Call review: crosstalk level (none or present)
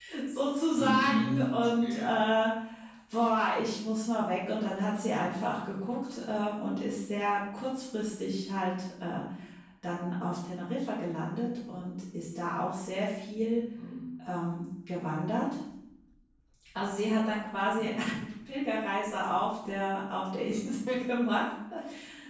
present